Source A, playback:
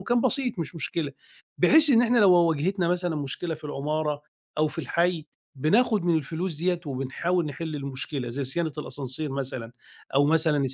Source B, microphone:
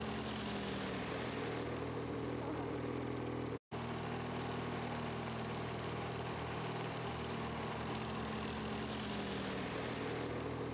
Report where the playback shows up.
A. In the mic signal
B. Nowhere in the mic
B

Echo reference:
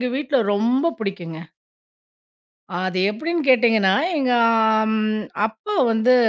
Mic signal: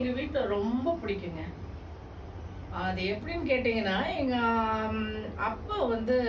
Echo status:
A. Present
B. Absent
A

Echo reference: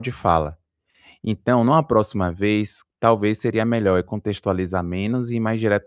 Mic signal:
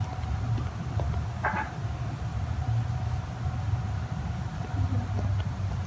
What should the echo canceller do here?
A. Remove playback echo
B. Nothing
B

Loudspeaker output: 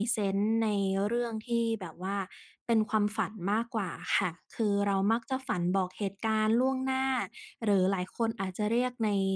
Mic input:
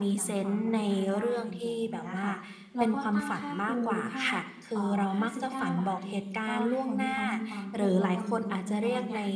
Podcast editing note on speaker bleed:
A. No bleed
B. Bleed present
B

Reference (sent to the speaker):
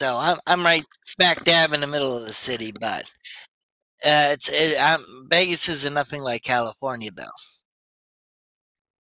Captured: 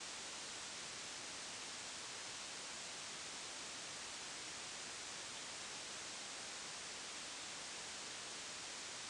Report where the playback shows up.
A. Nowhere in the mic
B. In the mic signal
A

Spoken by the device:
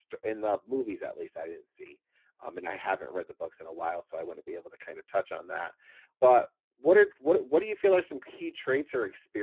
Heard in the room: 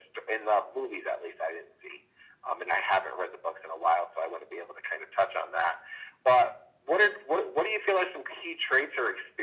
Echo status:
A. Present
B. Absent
A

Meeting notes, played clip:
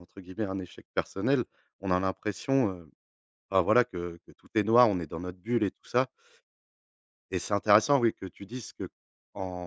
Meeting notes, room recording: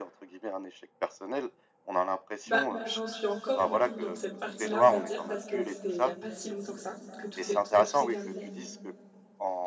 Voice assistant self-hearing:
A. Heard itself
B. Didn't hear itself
A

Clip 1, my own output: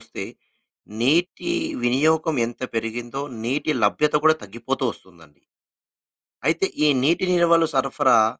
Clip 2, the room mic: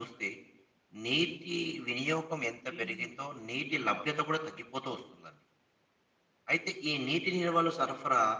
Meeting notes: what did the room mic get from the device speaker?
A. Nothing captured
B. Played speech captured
B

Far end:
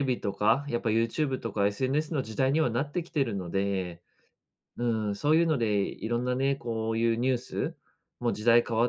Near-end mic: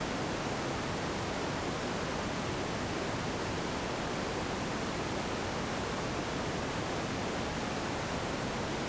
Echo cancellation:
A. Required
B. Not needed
B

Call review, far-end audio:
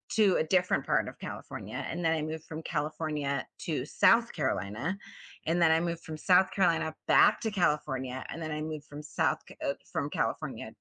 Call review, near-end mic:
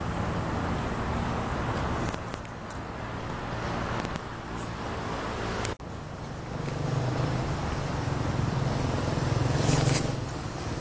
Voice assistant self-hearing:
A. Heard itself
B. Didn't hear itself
B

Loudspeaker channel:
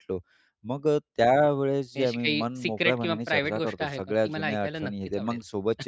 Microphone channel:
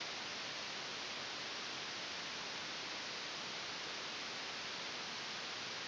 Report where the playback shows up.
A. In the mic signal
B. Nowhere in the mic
B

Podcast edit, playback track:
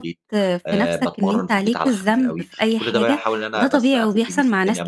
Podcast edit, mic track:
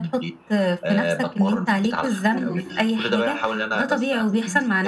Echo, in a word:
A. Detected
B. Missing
A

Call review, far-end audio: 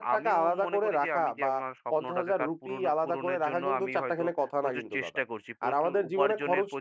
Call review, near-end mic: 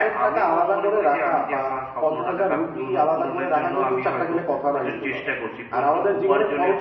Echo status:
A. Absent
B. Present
B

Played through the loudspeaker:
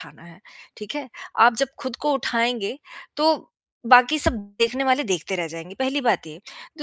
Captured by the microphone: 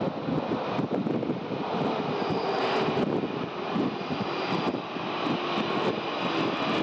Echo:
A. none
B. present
A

